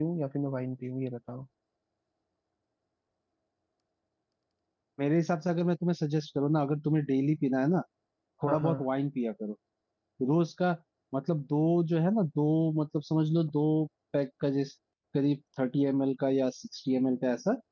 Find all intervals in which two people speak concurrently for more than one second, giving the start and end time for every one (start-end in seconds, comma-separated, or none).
none